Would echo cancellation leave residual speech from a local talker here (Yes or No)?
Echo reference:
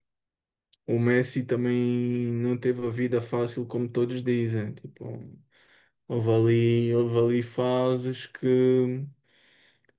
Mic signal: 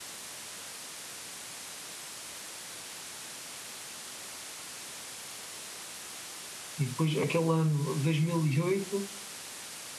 Yes